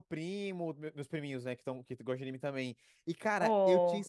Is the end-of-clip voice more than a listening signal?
No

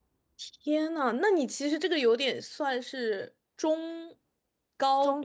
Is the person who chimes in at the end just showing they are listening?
No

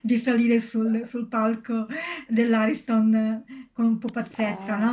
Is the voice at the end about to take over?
No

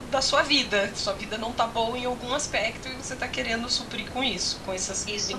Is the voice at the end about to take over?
Yes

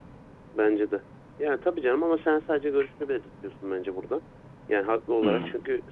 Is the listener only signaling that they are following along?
Yes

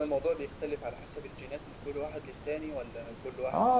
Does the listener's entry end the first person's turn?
Yes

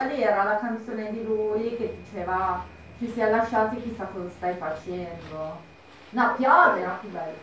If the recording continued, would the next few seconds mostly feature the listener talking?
No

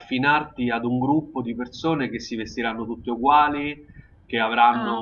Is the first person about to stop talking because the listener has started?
No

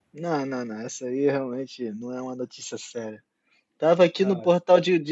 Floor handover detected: No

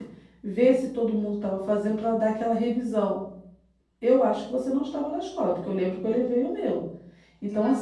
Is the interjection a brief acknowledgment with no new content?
Yes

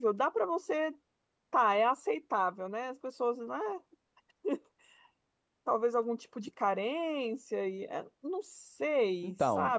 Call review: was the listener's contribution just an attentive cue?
No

